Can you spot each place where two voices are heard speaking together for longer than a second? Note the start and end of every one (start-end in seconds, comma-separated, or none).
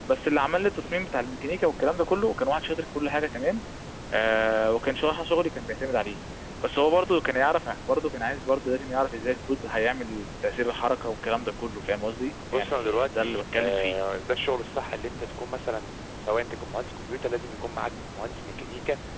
12.5-13.9